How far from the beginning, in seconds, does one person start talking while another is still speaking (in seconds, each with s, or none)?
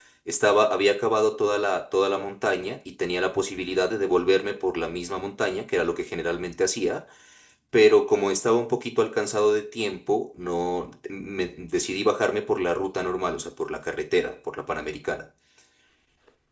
none